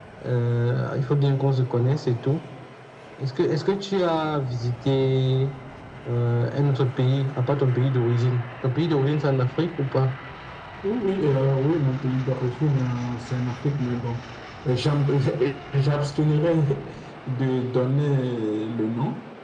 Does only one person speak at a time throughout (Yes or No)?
Yes